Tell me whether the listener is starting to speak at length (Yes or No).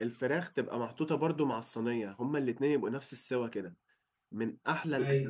No